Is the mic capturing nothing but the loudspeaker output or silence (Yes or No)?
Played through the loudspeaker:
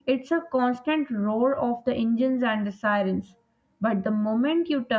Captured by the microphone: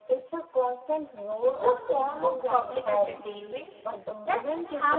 No